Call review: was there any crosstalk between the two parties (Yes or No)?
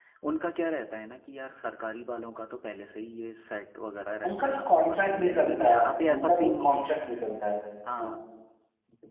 Yes